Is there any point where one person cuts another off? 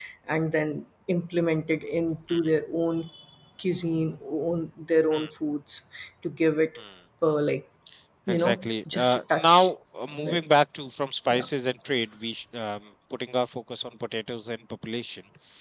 Yes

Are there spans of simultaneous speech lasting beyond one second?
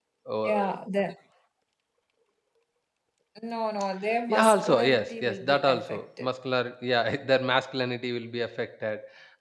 Yes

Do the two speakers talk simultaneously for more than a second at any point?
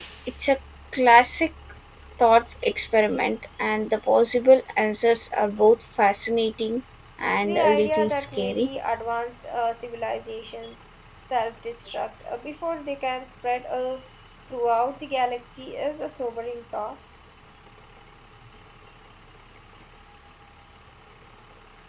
Yes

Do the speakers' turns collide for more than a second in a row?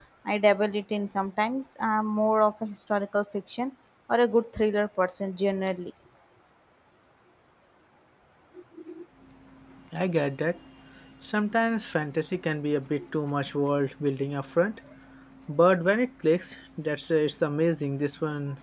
No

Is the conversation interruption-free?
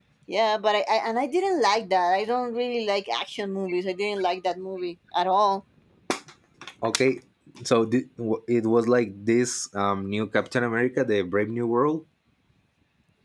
Yes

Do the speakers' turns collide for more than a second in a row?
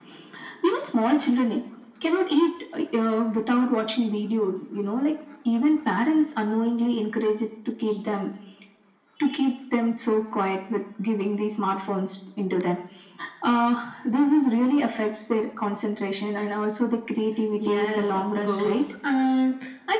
Yes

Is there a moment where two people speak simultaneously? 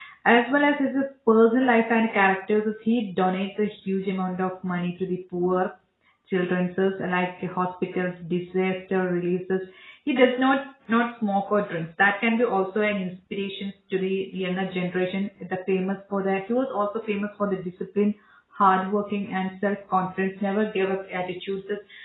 No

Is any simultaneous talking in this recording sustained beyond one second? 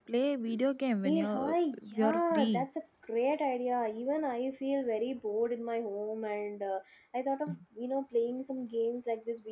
Yes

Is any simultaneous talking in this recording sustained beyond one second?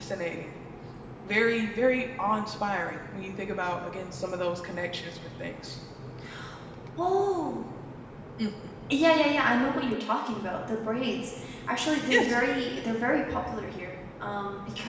No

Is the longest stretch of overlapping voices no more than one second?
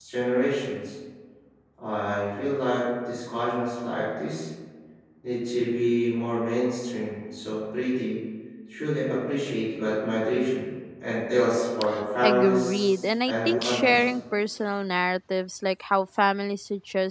No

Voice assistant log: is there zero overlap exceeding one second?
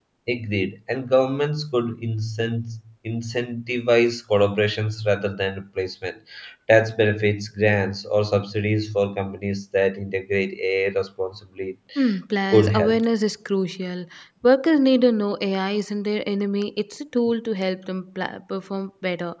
Yes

